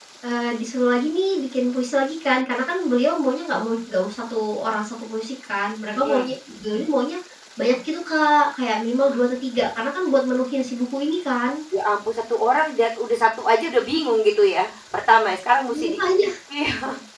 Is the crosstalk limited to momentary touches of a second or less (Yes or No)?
Yes